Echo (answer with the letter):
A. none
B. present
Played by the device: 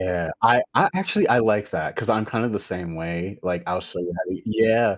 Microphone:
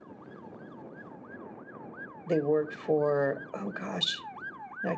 A